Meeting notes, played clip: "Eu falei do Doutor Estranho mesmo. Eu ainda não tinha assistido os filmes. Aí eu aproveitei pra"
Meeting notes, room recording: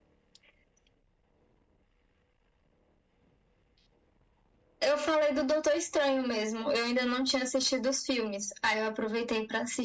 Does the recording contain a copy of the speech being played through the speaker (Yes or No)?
Yes